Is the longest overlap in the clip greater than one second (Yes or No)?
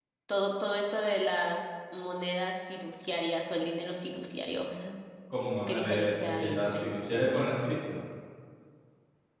Yes